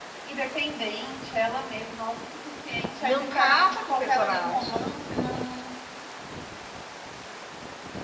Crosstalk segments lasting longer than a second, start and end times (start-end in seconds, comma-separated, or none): 3.0-4.8